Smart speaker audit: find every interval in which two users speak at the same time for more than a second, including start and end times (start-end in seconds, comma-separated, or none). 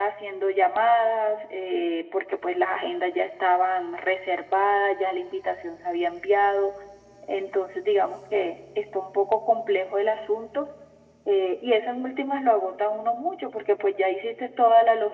none